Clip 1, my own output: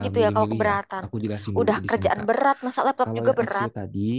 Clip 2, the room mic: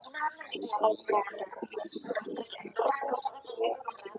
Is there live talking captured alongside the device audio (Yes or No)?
No